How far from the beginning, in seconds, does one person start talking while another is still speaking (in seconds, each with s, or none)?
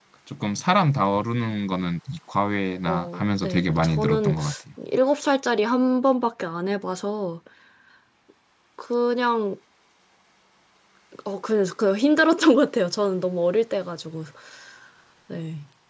2.9 s